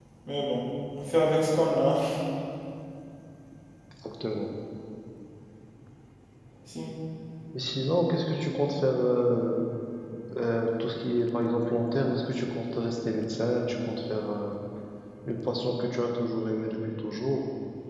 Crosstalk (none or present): none